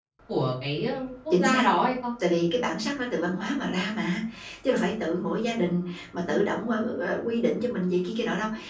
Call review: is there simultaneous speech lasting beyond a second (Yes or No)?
No